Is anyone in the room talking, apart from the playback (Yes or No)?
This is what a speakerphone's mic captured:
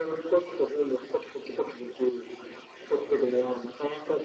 No